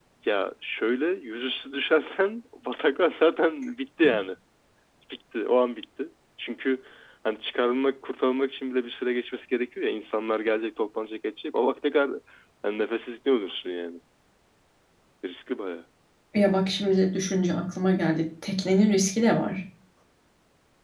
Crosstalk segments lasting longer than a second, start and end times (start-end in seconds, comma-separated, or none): none